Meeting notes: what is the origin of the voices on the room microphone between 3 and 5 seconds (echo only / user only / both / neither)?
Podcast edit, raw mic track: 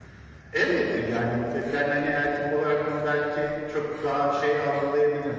echo only